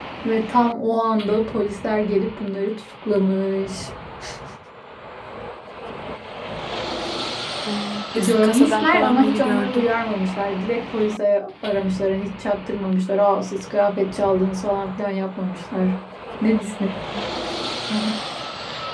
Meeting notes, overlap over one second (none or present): present